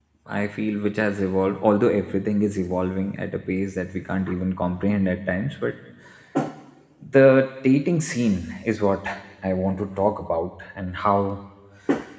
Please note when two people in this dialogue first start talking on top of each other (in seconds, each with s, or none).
none